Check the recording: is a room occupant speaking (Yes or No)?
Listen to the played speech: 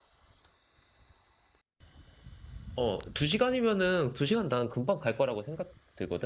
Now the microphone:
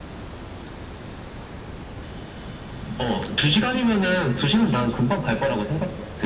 No